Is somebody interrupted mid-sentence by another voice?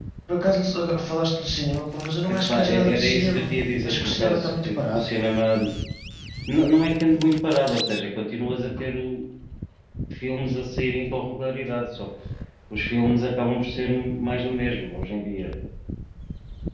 Yes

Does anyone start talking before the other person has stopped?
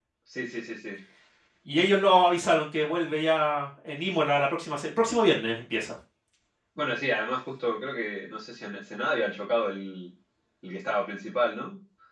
No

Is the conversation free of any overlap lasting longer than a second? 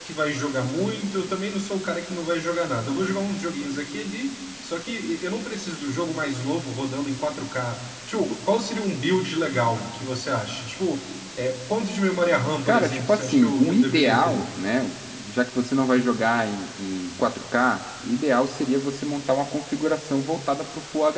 No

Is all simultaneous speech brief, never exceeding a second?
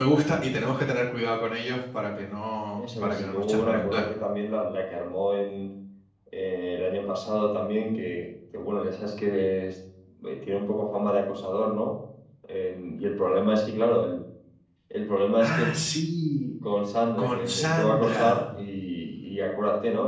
No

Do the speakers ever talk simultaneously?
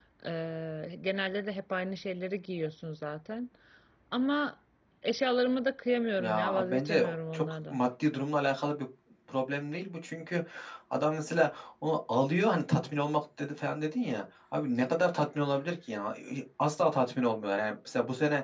Yes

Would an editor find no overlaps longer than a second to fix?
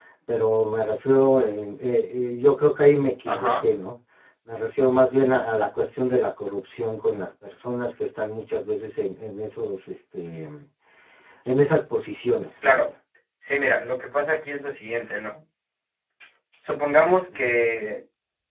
Yes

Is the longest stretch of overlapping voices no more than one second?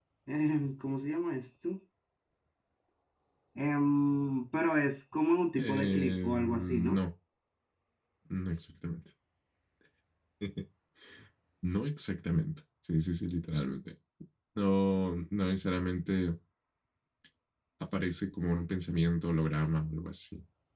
No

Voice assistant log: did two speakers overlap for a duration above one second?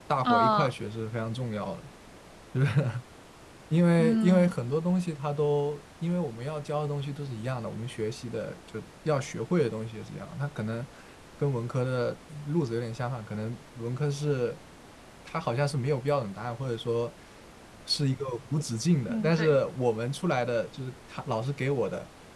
No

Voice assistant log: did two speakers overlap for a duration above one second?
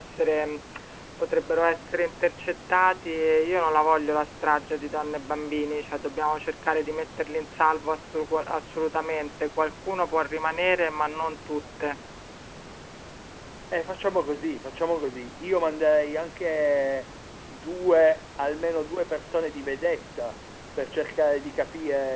No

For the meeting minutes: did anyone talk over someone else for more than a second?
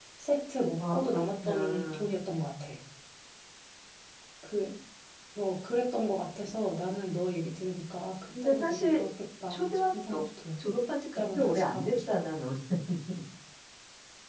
Yes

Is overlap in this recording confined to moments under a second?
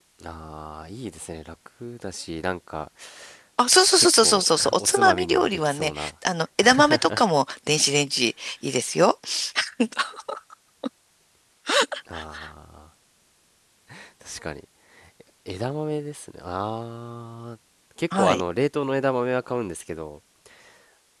No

